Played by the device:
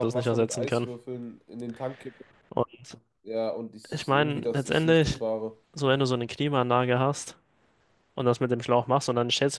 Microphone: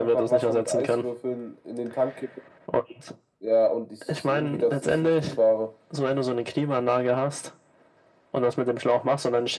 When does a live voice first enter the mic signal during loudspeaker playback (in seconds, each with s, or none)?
none